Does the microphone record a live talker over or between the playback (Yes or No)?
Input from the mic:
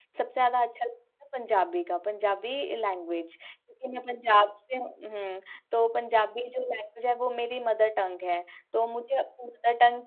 Yes